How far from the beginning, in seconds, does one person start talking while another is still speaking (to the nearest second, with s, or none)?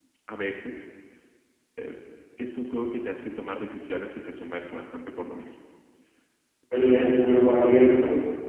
none